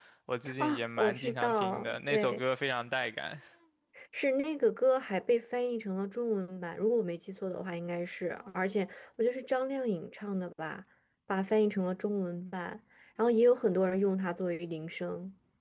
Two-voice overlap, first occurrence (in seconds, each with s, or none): 0.6 s